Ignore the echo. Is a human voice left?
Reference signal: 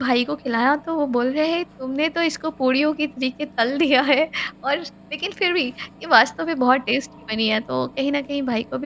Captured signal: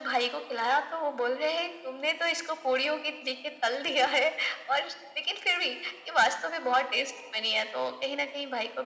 No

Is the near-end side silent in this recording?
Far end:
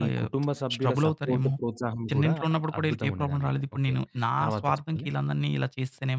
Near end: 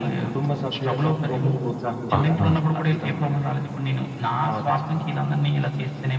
No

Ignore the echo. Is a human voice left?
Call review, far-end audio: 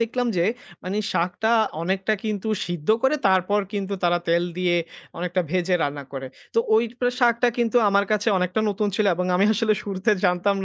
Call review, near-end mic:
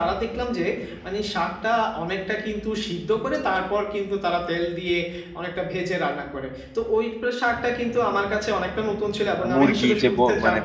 Yes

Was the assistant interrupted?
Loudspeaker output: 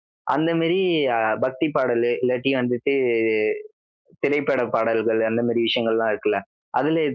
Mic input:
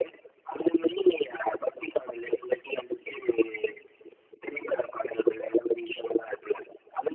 No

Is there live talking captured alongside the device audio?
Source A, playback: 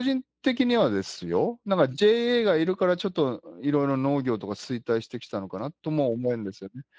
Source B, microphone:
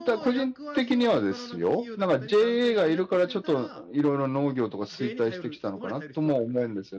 Yes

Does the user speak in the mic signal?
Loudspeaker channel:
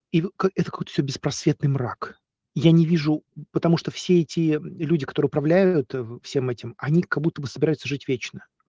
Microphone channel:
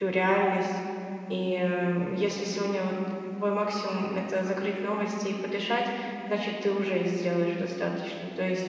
Yes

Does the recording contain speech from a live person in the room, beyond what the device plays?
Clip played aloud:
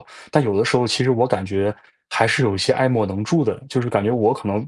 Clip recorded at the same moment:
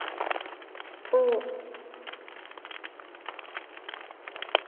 Yes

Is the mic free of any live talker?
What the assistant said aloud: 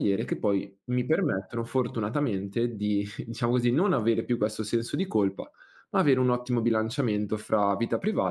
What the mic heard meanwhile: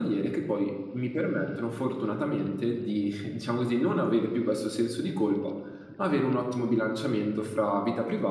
Yes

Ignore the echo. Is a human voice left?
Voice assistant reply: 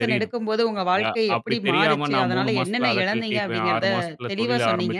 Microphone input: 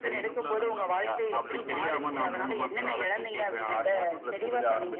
Yes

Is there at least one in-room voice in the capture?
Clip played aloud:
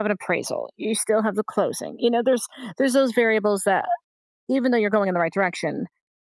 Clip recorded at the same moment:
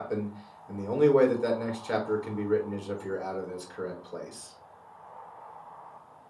Yes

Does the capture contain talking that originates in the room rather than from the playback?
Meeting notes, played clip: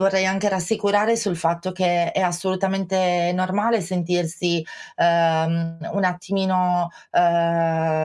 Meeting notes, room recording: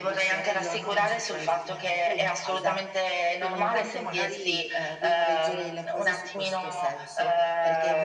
Yes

